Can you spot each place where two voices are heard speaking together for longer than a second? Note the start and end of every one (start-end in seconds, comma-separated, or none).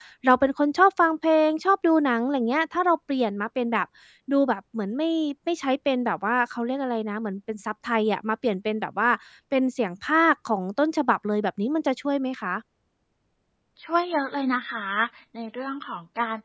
none